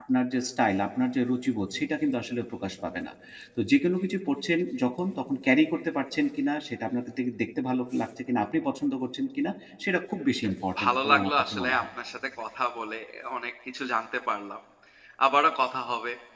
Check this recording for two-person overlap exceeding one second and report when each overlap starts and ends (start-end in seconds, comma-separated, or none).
10.4-11.8